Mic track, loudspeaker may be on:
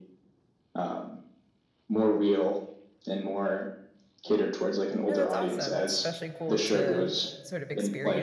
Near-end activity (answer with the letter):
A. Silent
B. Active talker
B